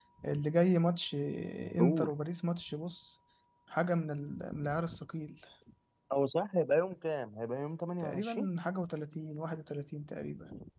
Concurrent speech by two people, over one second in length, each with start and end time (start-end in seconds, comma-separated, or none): none